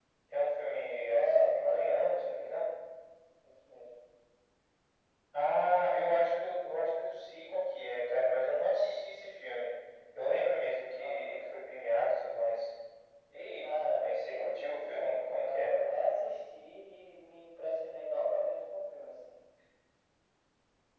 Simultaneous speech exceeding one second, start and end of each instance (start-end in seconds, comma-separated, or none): 1.1-2.6, 13.6-15.8